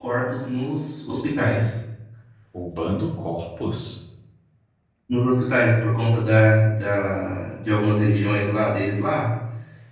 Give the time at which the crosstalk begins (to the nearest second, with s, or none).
none